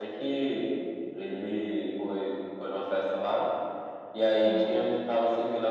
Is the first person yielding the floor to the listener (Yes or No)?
No